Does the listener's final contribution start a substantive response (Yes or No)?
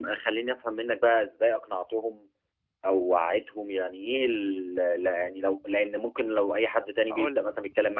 No